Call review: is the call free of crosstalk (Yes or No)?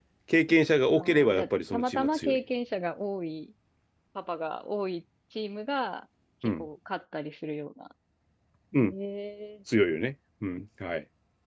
No